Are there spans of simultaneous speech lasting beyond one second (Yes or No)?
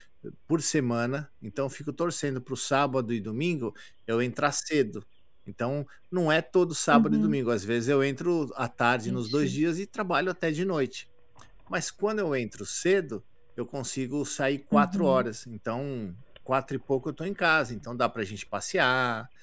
No